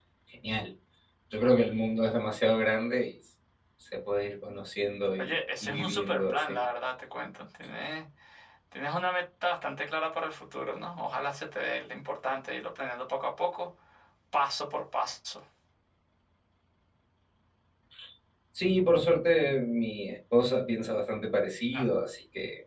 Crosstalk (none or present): present